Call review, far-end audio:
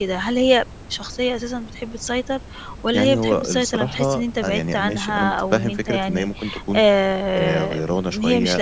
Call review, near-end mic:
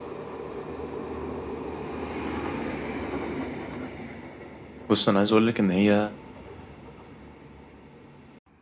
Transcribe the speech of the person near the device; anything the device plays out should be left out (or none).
بُصّ، أنا عايز أقول لِك إن هي